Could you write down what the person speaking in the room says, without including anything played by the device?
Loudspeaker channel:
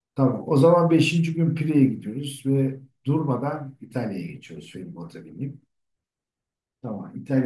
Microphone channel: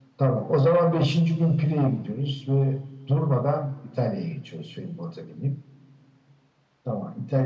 none

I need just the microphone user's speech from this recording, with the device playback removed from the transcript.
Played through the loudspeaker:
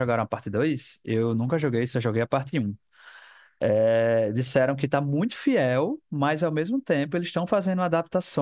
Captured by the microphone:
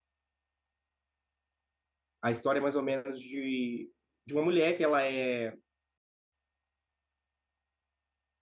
a história é mais ou menos de, de uma mulher que ela é

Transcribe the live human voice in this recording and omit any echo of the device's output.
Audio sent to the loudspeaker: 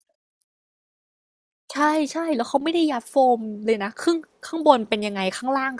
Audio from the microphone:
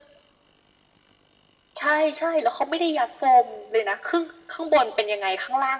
none

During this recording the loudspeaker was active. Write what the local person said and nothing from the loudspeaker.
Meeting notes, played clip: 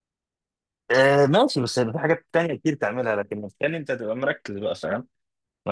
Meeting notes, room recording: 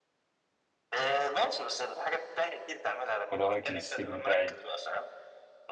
وده رايك الاستيك بتاعي

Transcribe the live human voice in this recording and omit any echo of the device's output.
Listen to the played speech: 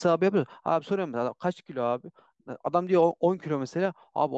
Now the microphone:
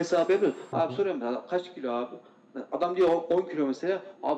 Hı hı.

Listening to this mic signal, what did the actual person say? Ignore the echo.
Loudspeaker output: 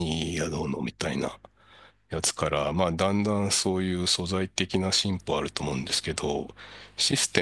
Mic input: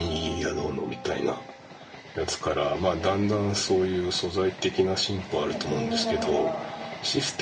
でも透明だから、

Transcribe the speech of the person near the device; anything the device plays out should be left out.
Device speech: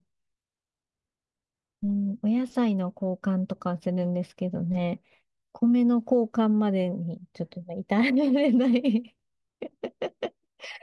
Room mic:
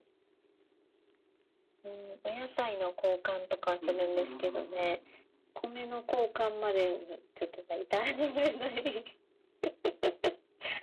うん、うん、うん、うん。

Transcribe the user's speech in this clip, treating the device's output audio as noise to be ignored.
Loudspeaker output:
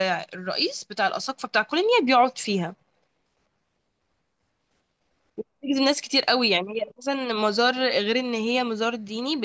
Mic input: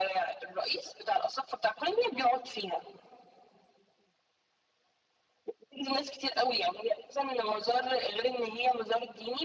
none

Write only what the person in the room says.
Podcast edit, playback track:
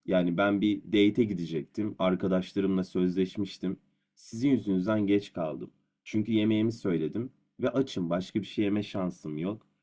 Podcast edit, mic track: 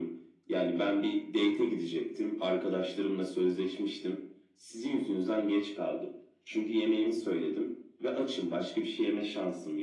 none

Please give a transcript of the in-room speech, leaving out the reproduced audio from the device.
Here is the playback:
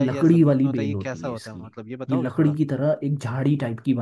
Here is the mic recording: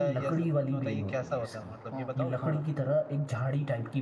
हाँ हाँ

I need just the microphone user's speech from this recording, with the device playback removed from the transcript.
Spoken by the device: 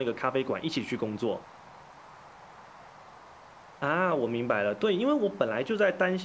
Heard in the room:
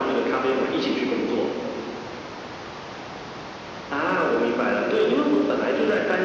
none

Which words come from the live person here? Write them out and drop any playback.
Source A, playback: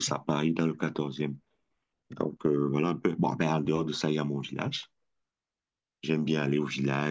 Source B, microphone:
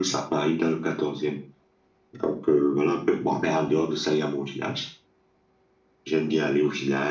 none

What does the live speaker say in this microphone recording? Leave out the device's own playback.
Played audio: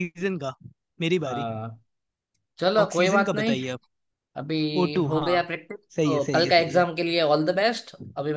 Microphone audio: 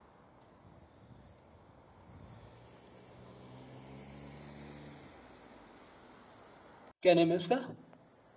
क्या नेम है उसका

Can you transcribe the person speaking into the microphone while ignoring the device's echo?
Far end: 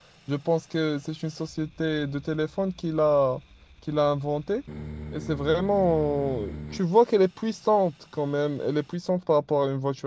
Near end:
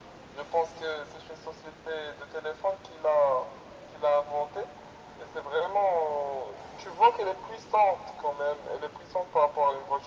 none

